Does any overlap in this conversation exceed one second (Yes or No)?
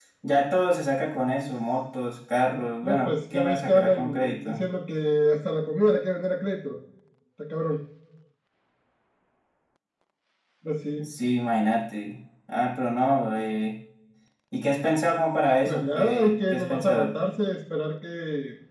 Yes